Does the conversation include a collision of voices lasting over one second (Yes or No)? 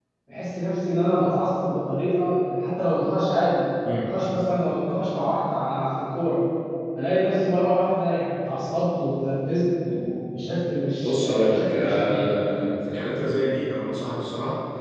Yes